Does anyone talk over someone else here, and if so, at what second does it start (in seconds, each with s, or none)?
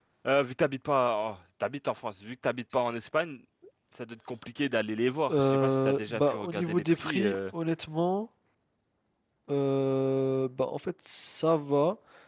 5.3 s